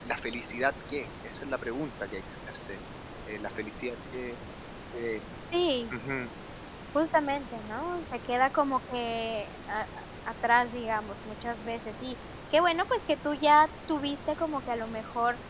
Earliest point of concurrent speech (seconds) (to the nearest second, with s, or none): none